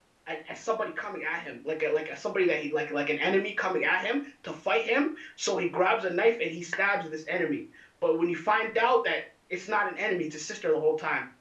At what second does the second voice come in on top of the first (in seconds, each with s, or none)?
none